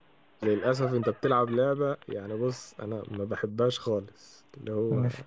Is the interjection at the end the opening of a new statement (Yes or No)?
No